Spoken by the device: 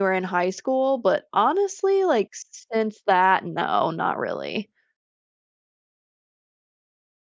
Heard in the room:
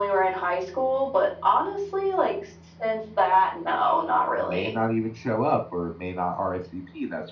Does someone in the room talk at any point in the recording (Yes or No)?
Yes